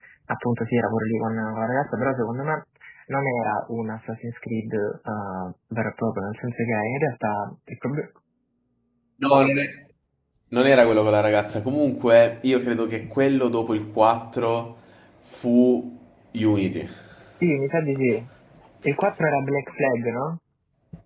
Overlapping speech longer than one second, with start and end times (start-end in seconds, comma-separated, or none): none